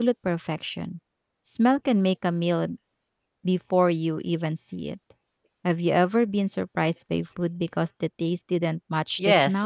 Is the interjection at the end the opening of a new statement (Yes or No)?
Yes